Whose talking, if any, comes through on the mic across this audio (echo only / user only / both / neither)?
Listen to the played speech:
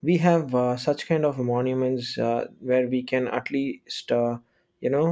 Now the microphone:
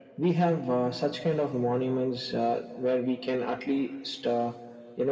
echo only